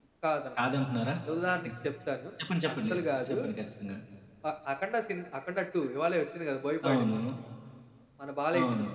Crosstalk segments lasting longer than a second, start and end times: none

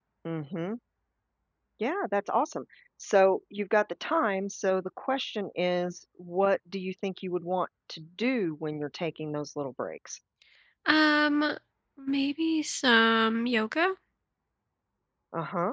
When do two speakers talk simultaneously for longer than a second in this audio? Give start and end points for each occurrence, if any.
none

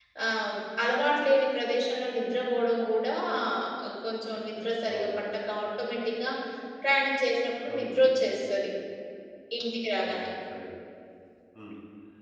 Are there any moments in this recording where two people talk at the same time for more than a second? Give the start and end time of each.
none

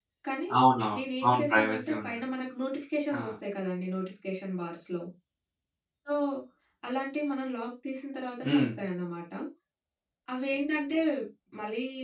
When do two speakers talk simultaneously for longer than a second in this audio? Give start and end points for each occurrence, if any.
0.9-2.3

